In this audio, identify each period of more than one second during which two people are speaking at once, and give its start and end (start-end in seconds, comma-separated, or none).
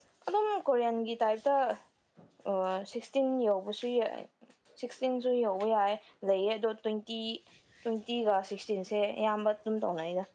none